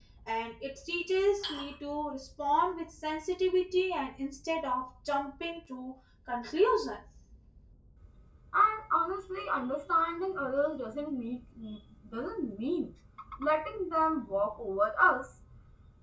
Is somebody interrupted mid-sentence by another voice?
No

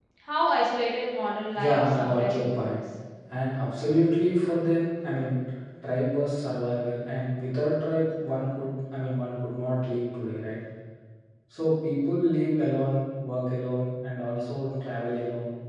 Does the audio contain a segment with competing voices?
Yes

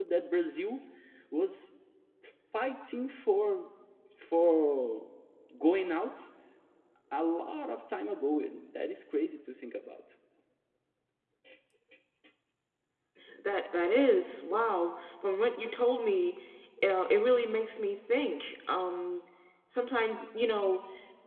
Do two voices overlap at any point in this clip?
No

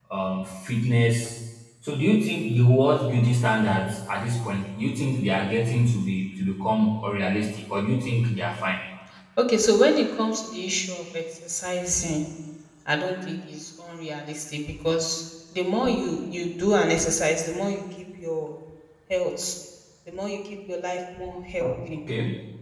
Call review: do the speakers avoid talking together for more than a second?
Yes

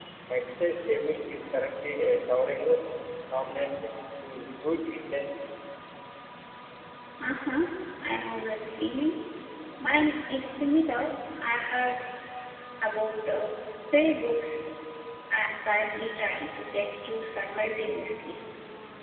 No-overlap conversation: Yes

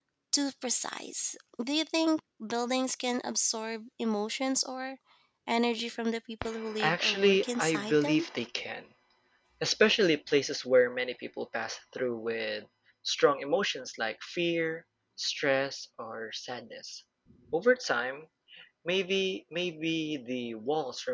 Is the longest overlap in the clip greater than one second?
Yes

